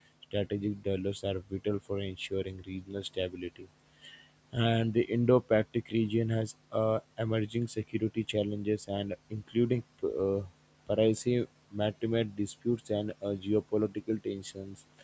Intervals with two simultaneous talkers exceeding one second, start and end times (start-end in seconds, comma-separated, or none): none